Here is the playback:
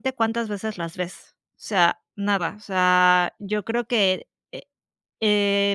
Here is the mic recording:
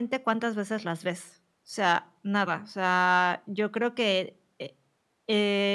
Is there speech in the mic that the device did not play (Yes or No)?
No